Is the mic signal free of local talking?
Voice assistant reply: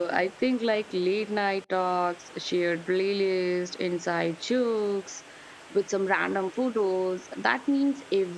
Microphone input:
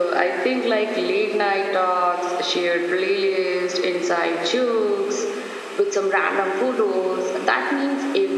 Yes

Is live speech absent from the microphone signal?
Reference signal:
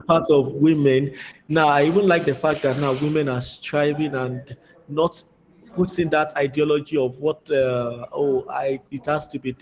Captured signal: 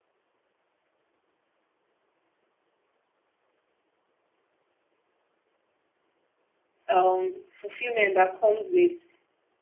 No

